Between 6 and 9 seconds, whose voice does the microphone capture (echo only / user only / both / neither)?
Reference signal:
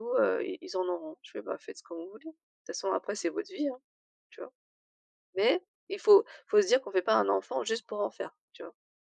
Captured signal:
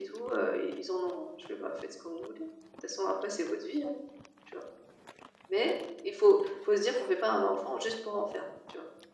echo only